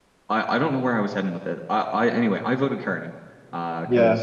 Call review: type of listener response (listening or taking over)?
listening